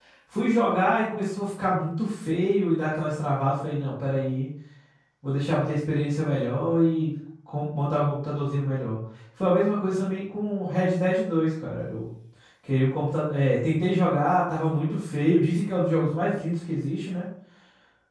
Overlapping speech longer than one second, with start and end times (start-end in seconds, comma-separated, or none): none